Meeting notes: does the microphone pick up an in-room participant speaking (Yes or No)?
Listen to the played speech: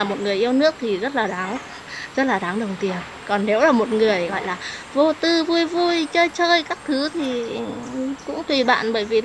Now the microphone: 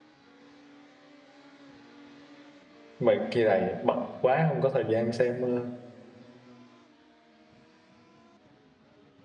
Yes